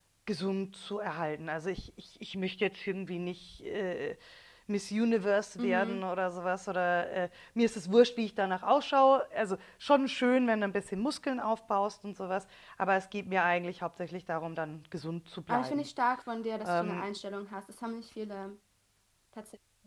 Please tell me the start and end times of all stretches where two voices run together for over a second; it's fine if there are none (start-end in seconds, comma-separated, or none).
none